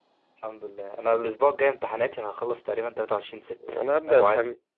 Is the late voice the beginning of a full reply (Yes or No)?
Yes